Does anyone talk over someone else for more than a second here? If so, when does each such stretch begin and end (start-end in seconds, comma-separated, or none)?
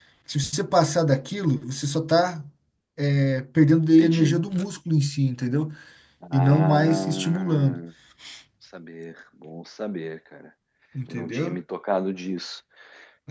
6.3-7.8